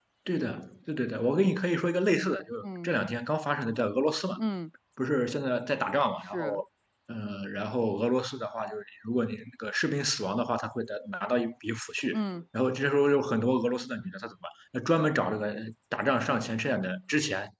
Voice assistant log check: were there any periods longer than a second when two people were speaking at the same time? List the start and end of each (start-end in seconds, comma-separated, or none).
none